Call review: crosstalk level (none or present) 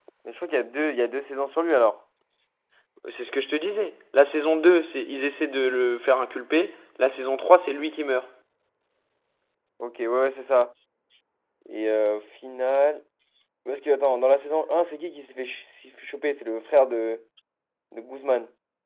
none